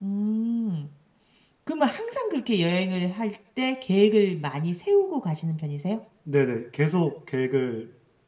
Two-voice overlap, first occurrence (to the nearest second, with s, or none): none